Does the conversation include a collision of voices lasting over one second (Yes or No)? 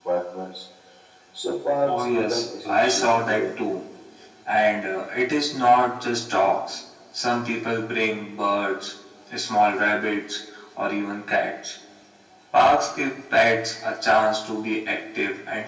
Yes